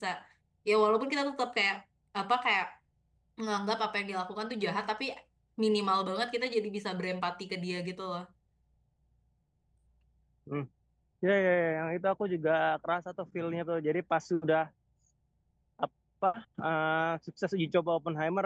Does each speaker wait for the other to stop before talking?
Yes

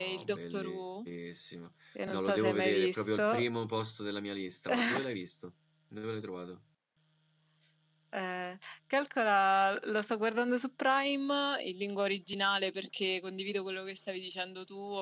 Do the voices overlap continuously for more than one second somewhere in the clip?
Yes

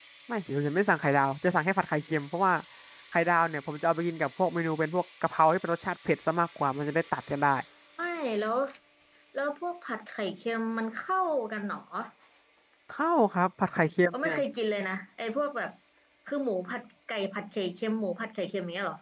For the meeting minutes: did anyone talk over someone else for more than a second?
No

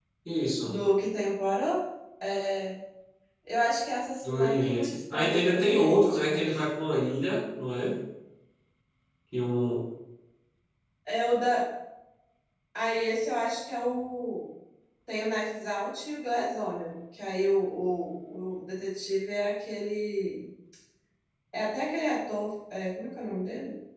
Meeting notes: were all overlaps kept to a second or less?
No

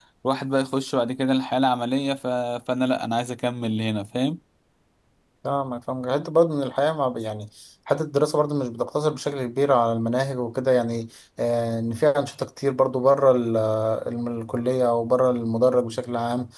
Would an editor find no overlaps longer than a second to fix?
Yes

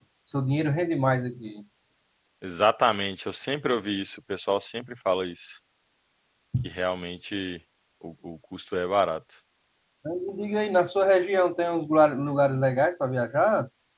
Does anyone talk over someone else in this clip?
No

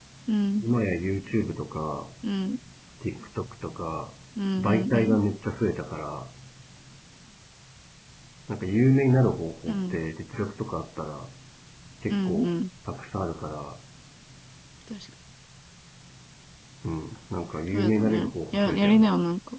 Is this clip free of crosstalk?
No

